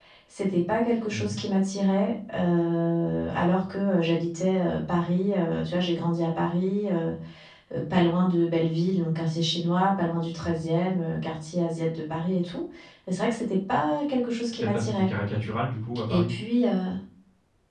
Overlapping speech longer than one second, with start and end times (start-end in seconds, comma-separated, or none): none